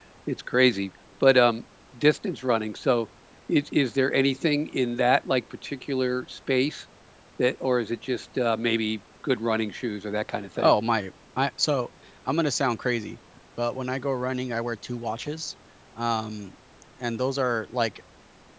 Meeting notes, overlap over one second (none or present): none